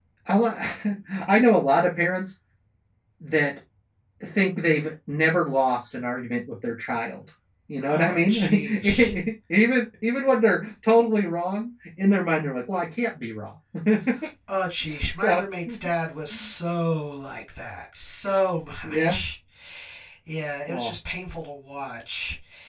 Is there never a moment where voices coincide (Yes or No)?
No